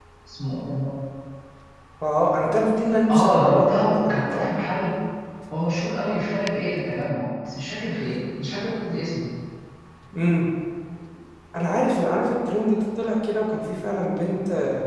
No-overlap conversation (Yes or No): No